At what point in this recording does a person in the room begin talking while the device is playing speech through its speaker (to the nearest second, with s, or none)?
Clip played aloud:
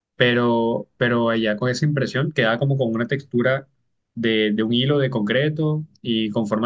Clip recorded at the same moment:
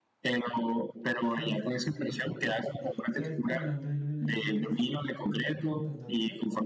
1 s